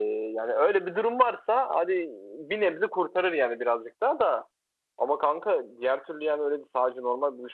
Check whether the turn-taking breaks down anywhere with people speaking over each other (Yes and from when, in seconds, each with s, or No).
No